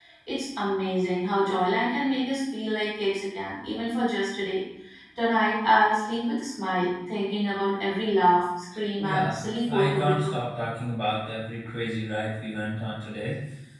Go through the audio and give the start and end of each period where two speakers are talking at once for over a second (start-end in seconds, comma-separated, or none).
9.0-10.3